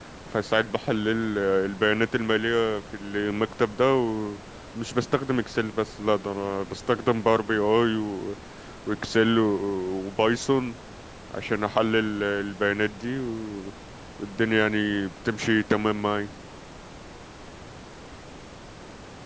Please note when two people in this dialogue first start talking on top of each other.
none

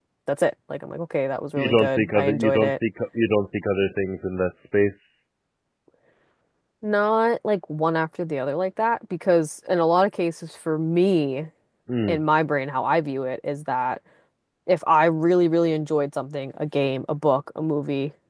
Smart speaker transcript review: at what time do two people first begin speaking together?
1.6 s

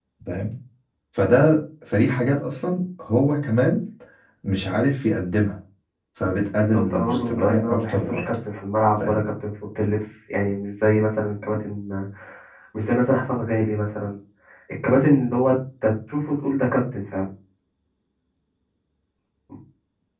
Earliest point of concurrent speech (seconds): 6.6 s

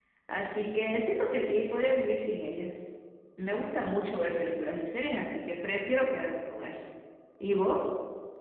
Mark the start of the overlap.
none

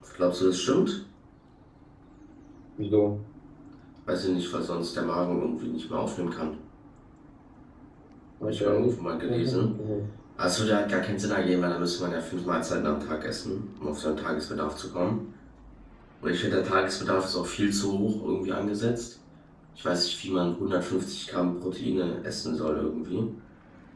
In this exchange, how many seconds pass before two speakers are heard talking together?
8.4 s

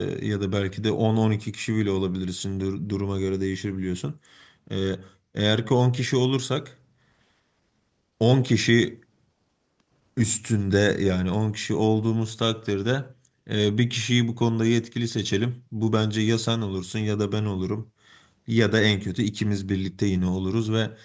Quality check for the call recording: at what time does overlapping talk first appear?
none

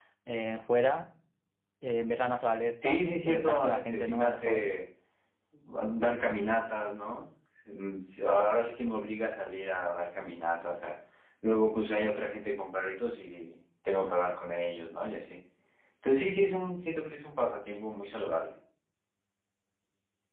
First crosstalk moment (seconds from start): 2.8 s

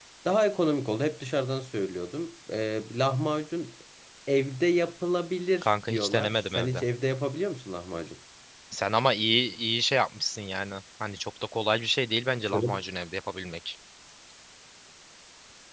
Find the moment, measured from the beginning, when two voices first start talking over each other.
5.6 s

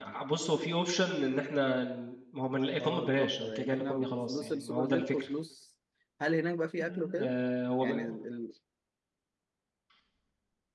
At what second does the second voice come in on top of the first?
2.8 s

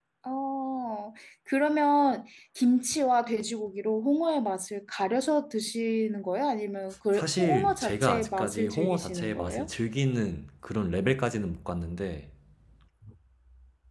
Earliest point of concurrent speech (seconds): 7.1 s

